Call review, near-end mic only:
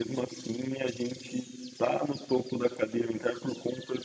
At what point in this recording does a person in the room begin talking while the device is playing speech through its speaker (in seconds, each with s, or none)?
none